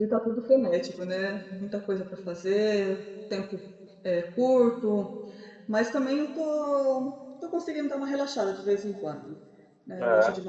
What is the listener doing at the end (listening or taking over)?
listening